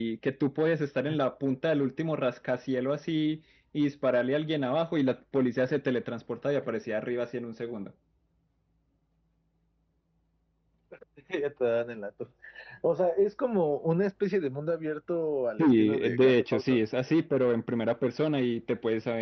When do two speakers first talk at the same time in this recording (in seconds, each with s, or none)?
15.6 s